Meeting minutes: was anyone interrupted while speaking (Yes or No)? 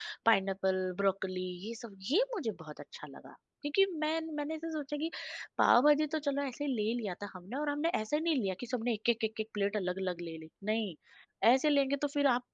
No